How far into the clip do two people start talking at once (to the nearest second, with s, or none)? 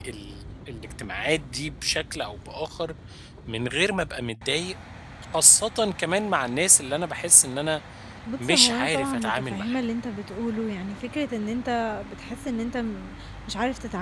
8 s